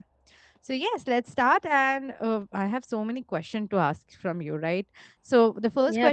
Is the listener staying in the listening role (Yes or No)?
Yes